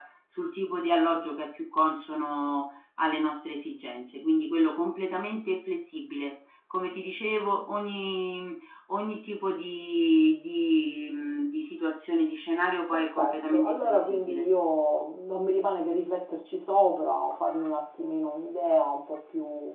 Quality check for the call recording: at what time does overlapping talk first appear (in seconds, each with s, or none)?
12.9 s